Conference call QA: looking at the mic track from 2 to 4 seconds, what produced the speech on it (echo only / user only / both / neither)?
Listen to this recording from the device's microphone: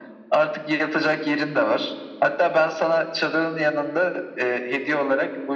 echo only